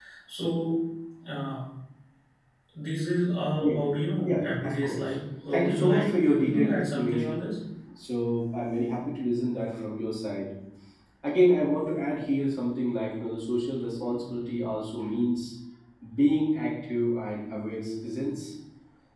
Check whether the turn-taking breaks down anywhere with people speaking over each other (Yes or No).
Yes